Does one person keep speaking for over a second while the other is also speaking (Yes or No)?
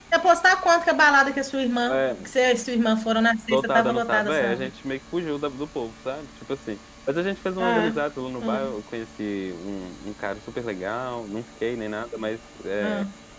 Yes